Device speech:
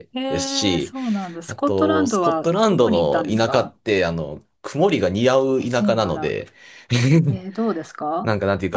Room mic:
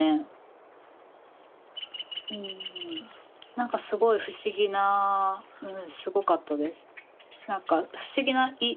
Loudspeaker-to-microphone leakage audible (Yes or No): No